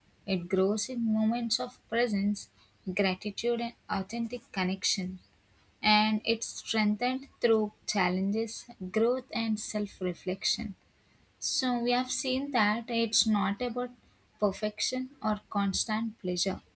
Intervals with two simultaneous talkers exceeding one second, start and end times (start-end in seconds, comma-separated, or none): none